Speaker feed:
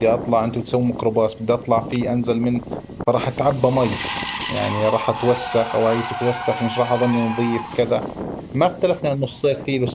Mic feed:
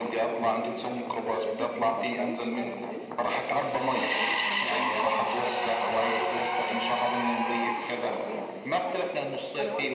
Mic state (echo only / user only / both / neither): both